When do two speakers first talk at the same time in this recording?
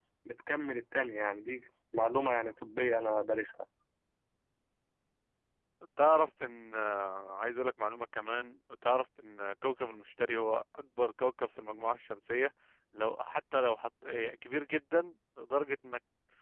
none

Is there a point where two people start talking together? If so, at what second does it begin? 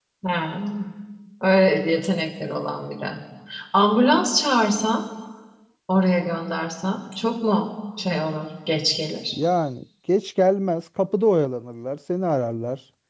none

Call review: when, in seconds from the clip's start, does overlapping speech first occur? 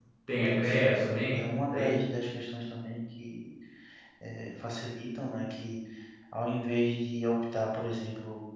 0.6 s

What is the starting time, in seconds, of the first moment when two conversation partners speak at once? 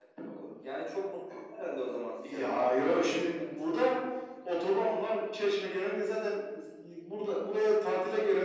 2.2 s

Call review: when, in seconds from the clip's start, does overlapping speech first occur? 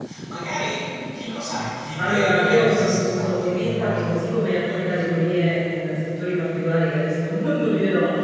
2.0 s

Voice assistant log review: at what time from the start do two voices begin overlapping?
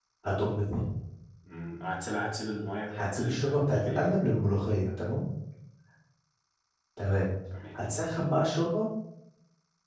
2.9 s

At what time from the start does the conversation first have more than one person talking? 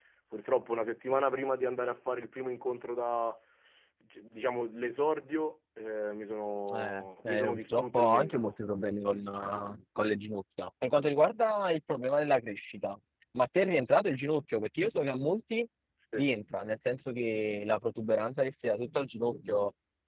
6.7 s

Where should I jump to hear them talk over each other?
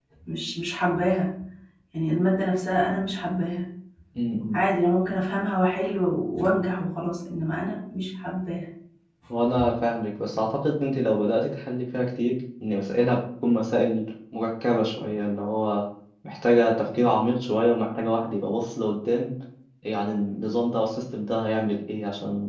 none

